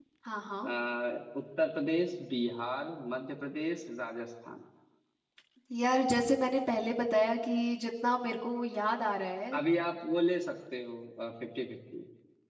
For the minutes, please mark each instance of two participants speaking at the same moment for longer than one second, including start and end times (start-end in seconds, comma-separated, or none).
none